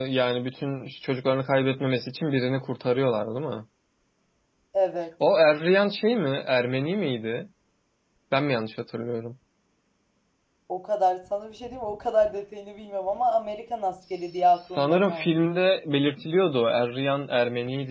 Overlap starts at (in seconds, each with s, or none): 14.0 s